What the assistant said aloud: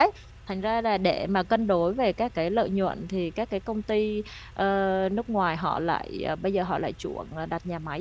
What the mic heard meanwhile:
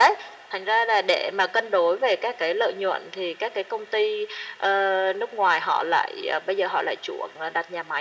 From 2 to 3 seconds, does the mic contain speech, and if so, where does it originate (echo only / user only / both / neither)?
echo only